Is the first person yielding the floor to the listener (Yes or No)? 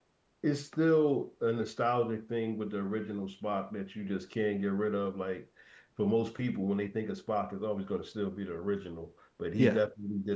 No